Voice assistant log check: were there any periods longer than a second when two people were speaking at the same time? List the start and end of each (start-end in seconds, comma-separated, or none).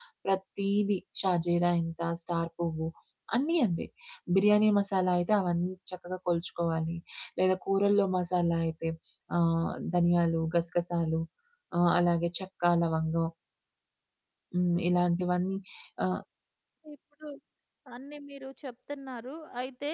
none